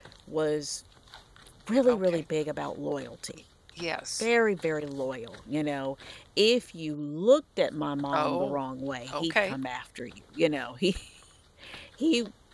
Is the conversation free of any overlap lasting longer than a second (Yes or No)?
Yes